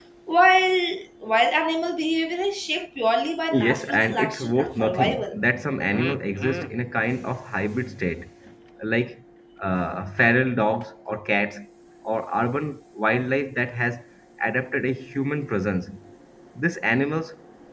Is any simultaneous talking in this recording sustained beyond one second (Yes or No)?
Yes